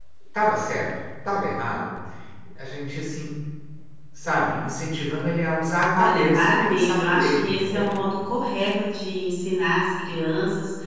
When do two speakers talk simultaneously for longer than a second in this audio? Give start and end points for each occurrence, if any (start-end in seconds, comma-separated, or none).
6.0-7.9